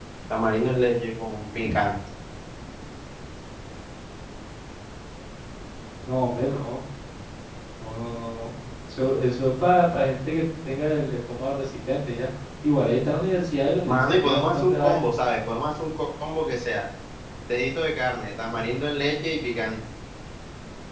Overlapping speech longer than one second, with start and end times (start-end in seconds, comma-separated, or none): 13.9-15.1